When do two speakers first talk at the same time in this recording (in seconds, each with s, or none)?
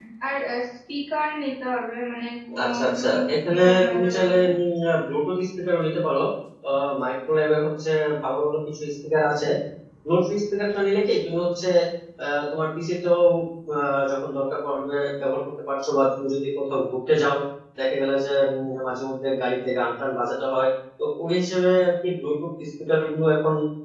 2.6 s